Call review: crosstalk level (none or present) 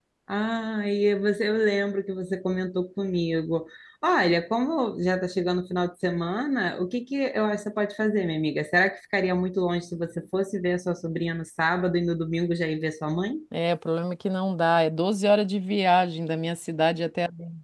none